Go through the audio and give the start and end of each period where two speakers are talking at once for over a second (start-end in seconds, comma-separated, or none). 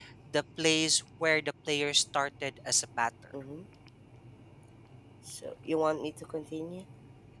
none